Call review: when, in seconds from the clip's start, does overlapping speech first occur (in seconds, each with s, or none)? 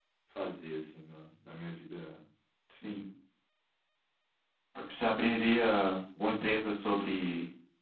none